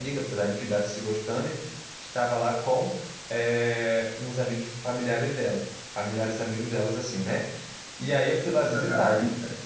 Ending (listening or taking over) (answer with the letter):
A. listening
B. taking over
B